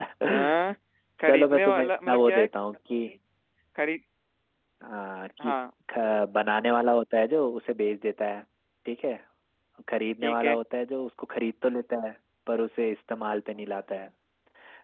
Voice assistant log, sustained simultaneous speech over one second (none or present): present